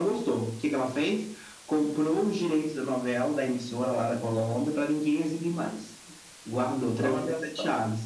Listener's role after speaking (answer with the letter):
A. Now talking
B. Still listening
B